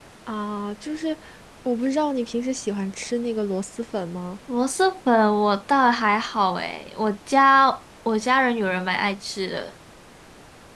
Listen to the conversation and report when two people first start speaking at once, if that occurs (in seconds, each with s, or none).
none